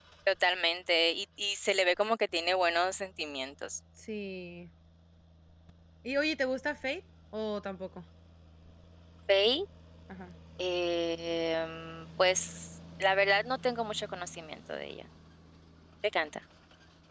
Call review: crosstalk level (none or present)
none